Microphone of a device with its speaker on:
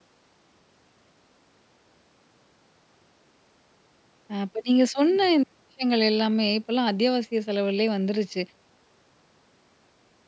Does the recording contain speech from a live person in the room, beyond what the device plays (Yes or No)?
Yes